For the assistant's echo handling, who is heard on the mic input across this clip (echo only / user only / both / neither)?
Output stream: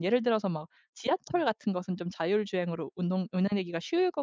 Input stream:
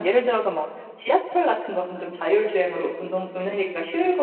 echo only